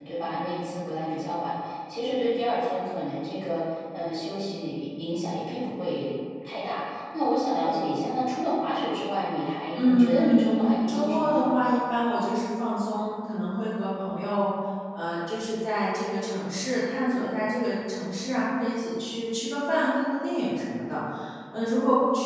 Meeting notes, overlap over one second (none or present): present